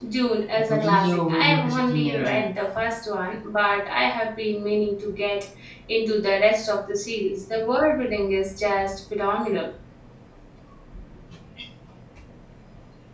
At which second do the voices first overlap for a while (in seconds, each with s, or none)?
0.6 s